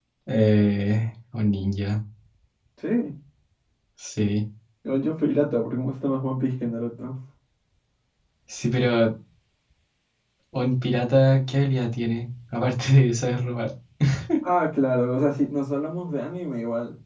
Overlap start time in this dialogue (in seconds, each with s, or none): none